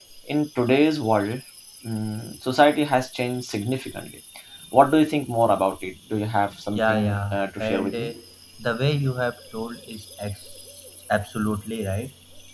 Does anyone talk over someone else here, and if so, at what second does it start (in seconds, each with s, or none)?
6.8 s